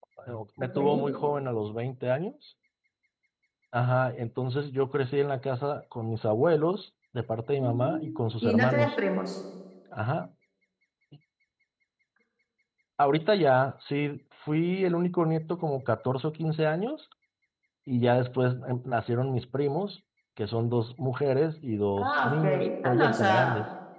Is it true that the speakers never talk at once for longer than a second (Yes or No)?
No